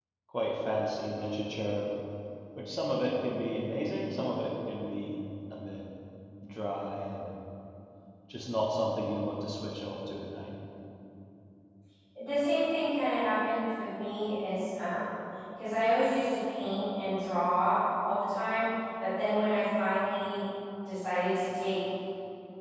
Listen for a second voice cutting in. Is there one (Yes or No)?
No